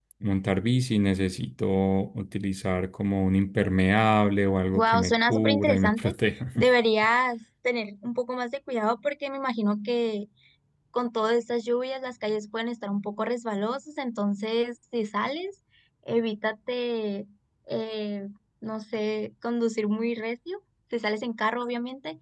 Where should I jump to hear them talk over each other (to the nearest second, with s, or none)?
5 s